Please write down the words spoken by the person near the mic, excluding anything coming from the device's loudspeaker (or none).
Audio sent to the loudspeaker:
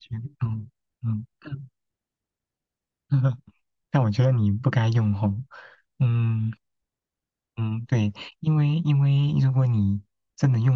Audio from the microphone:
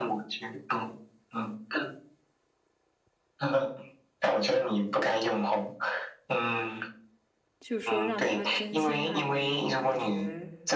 就是说让他真心爱你，我感觉。